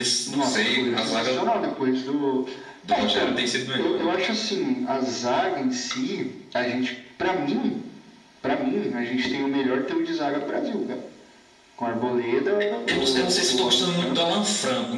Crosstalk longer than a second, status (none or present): present